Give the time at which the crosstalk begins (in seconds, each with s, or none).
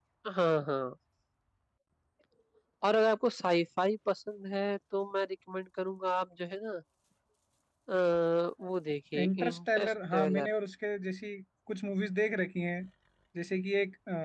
9.2 s